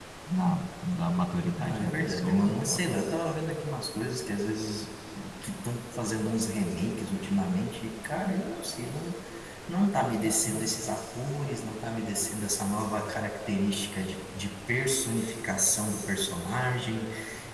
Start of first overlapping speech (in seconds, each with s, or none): 1.6 s